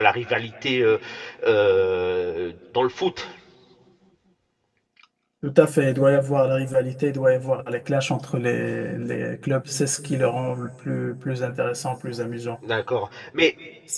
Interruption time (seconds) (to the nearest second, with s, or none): none